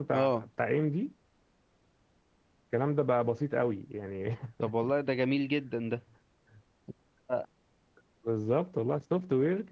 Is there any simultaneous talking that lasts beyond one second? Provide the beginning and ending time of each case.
none

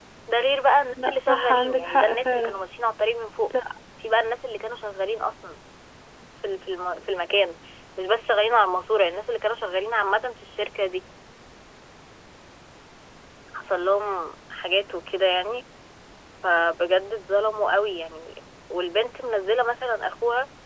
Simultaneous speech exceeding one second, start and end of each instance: 1.1-2.6

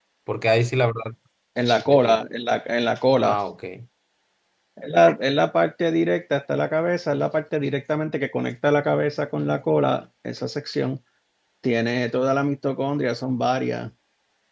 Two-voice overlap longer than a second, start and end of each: none

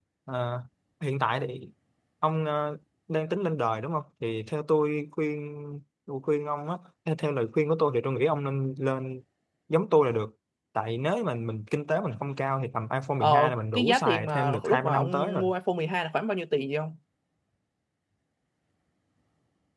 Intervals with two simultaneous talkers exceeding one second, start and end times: 13.2-15.4

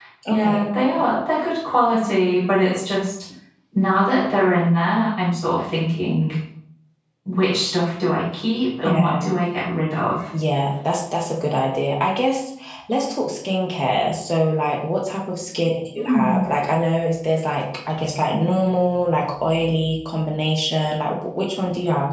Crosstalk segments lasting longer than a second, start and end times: none

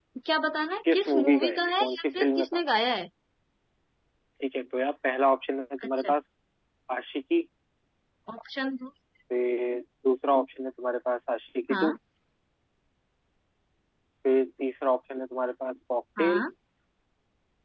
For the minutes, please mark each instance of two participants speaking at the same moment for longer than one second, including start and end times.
0.9-2.5

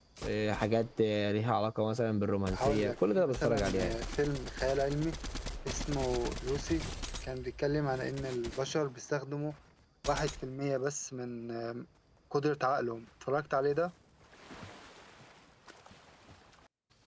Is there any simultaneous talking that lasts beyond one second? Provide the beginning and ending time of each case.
2.5-4.0

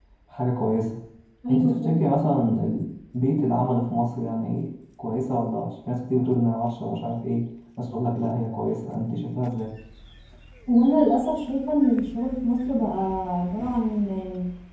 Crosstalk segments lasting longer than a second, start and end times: none

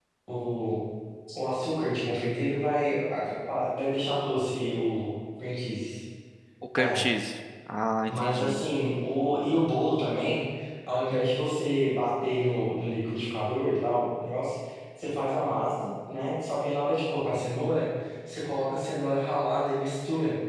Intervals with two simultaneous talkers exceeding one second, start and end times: none

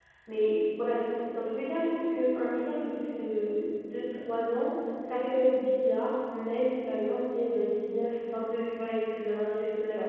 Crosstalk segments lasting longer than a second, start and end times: none

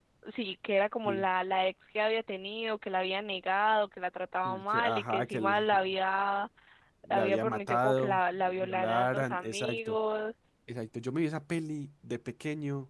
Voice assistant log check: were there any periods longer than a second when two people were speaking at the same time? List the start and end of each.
4.4-5.6, 7.1-10.0

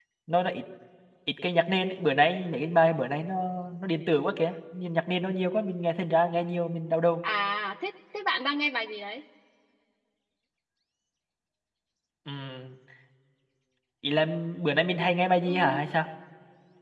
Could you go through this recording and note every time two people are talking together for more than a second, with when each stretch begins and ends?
none

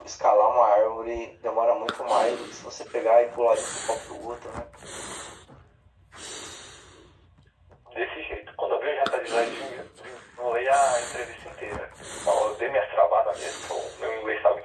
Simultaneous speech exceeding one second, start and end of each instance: none

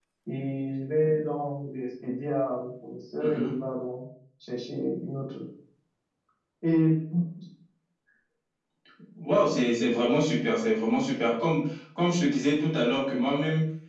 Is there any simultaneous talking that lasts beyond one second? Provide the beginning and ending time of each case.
none

